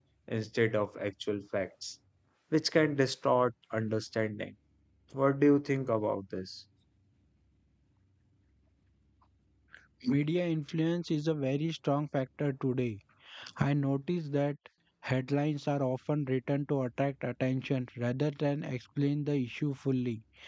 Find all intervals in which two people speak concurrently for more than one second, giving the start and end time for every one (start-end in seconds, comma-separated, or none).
none